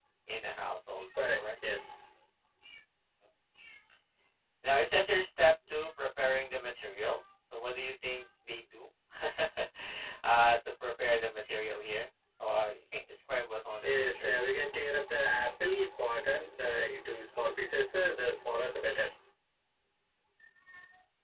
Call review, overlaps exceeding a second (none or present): none